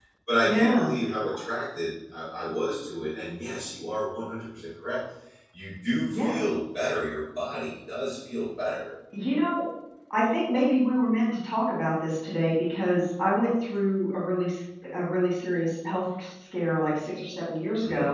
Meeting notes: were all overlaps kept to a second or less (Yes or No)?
Yes